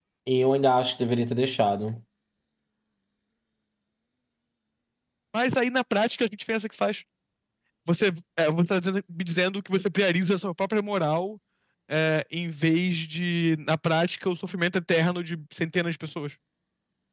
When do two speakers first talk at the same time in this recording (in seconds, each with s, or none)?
none